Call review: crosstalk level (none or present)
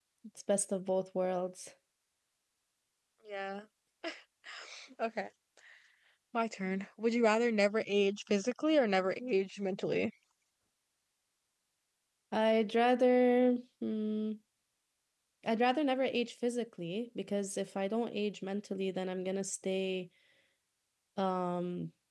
none